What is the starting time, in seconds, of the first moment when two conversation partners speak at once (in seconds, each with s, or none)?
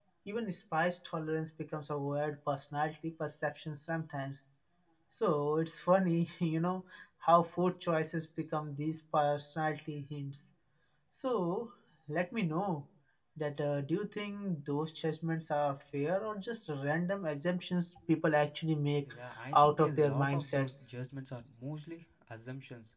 19.5 s